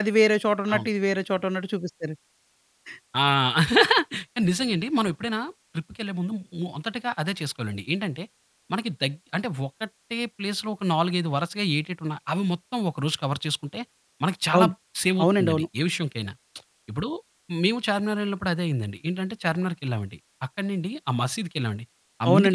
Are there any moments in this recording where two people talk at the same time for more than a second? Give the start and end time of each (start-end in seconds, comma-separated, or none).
none